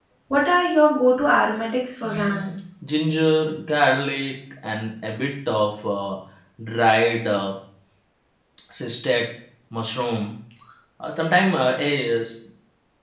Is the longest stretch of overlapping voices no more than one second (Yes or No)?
Yes